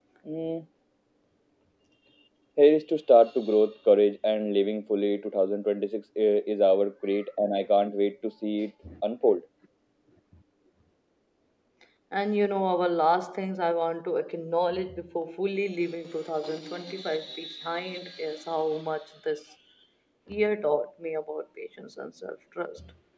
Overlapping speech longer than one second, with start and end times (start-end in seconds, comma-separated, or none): none